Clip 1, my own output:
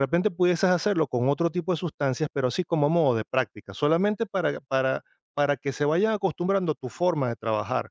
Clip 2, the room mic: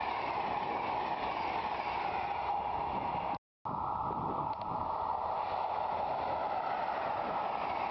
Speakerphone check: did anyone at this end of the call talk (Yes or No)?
No